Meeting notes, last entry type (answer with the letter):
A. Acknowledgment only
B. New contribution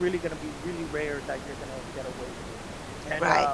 A